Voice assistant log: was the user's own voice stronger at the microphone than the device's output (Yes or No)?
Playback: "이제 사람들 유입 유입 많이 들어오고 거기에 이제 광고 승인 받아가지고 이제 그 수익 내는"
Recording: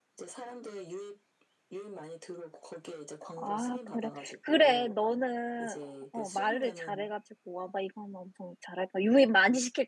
Yes